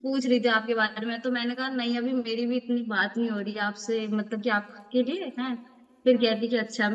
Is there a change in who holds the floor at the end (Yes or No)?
No